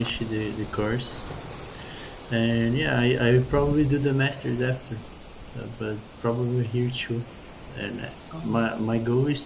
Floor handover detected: No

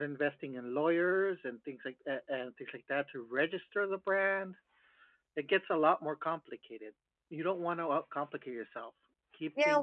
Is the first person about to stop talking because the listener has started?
Yes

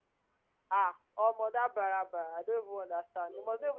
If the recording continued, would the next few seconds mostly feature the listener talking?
No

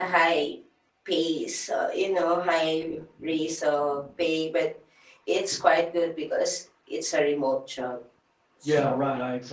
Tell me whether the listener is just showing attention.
No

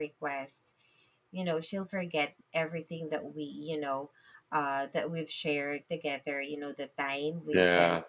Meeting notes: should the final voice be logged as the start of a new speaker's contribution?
No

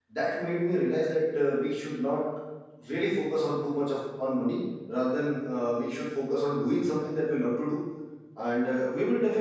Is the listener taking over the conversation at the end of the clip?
No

